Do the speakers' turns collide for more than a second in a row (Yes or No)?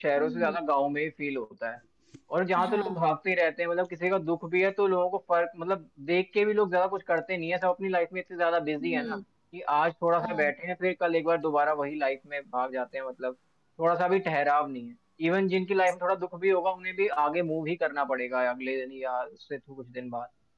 No